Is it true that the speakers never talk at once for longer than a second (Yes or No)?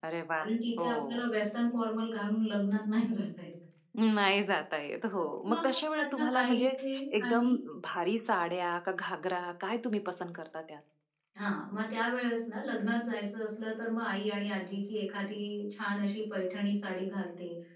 No